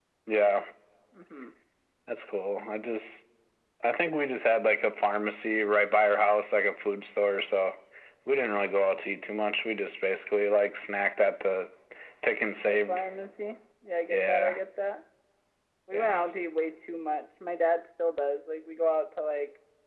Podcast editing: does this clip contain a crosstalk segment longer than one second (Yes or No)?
No